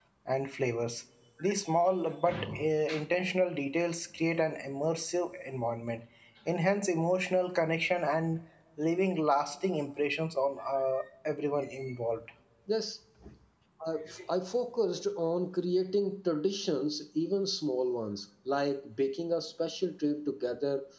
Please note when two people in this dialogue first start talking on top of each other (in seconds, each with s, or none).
none